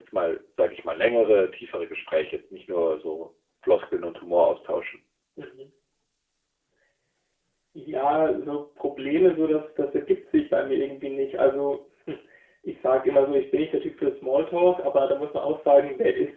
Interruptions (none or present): none